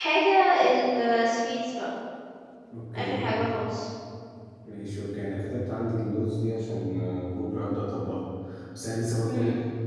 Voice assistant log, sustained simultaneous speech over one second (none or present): none